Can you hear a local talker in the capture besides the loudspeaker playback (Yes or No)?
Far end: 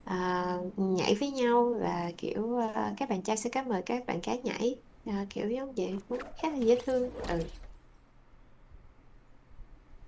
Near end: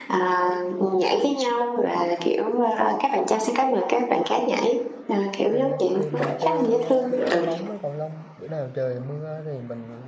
Yes